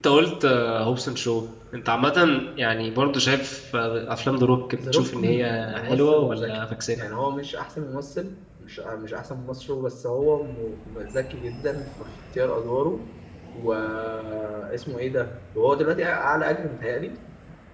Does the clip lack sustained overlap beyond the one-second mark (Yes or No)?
No